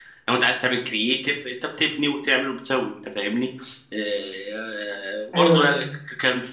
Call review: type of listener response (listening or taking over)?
listening